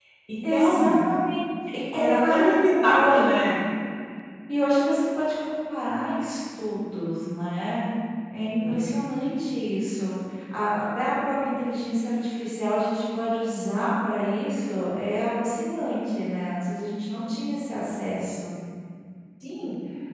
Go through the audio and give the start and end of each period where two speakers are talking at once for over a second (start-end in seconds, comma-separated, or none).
1.9-3.2